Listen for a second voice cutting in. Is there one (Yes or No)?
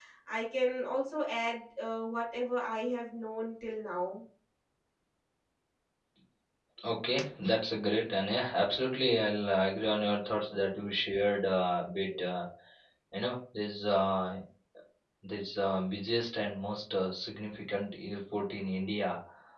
No